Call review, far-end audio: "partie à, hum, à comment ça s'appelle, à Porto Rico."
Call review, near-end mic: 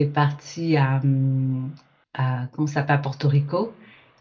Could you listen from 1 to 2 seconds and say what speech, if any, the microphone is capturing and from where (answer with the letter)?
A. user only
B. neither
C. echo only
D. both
C